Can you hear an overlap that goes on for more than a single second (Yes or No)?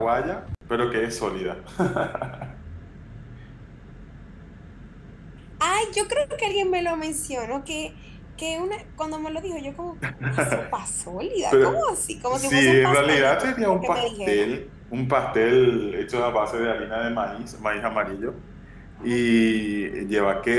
Yes